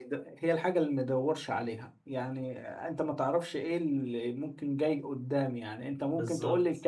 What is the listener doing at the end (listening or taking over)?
listening